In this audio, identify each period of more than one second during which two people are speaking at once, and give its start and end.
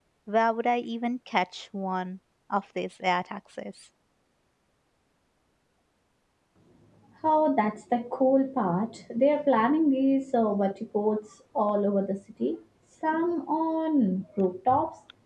none

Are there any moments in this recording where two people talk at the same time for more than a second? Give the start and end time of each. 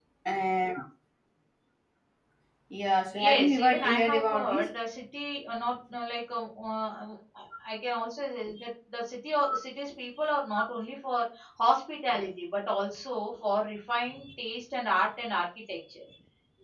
3.1-4.7

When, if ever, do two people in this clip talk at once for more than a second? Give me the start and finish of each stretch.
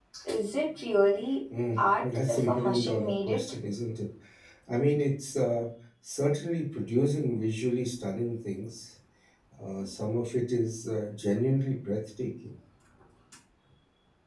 1.8-3.4

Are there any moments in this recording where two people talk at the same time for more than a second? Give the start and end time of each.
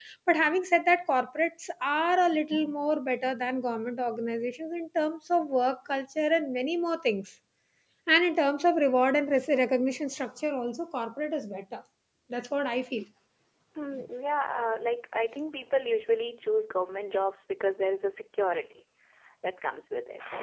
none

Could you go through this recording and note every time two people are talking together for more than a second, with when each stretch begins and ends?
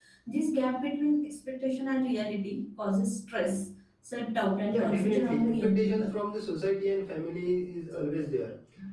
4.7-6.2

